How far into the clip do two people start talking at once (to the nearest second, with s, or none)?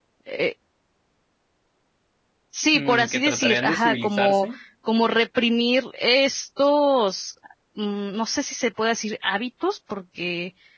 3 s